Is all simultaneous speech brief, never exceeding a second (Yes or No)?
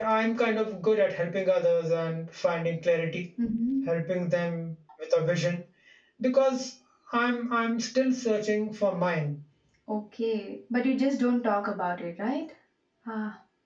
Yes